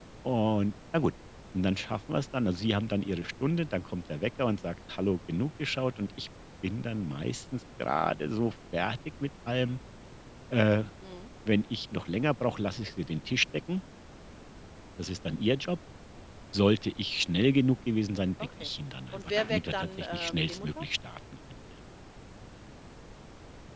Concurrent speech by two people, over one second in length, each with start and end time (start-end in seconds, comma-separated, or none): 19.1-20.8